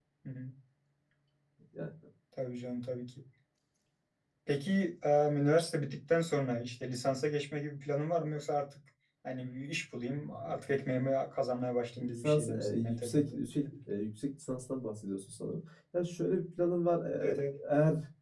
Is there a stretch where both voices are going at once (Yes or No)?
Yes